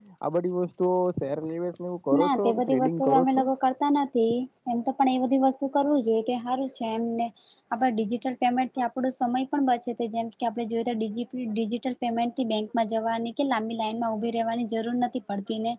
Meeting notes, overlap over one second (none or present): present